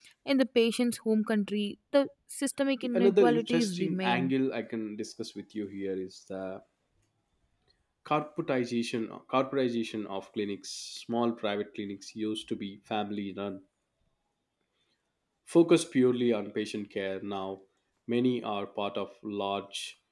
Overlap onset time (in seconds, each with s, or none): 2.8 s